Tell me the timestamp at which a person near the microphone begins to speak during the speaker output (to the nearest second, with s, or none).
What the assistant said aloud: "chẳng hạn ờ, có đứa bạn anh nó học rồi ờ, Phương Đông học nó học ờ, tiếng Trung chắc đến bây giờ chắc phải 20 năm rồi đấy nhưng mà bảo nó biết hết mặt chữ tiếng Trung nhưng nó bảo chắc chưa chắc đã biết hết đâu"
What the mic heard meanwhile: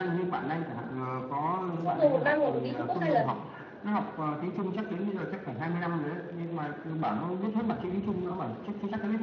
2 s